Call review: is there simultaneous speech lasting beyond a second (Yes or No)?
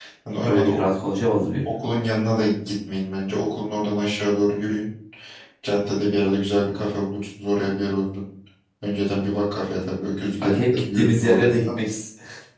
Yes